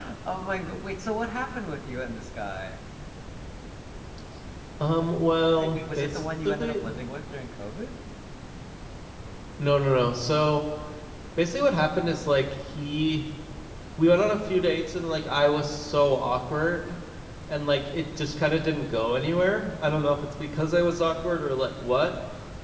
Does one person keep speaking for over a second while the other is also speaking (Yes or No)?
Yes